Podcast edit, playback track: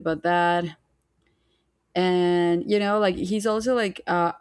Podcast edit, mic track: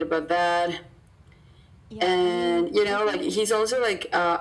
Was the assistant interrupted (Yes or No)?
Yes